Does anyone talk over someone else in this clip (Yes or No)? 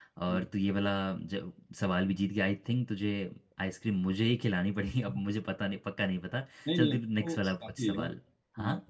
Yes